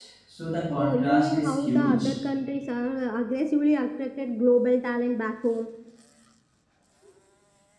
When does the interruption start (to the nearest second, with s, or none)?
1 s